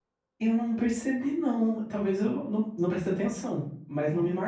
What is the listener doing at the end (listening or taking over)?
listening